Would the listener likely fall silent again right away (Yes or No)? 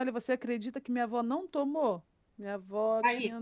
Yes